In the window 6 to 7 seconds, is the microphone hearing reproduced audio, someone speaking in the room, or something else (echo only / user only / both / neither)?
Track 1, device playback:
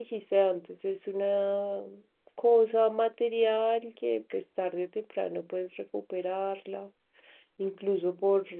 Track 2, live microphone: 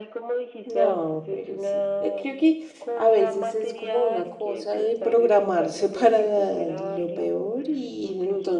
both